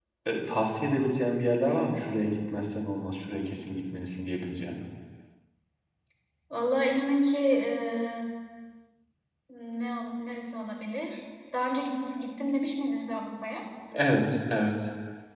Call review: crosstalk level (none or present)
none